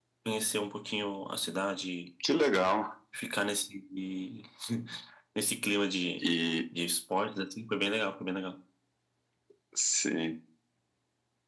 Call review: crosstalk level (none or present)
none